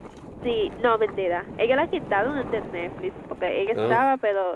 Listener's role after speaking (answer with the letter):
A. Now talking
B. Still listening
B